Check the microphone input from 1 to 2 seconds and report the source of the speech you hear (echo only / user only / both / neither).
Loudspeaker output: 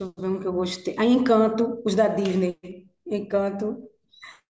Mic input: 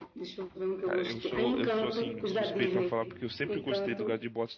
both